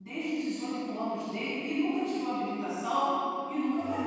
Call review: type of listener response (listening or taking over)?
taking over